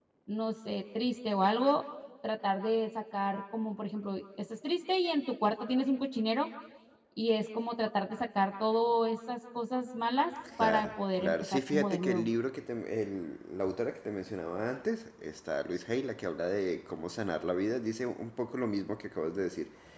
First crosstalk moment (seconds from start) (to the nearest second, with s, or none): 10 s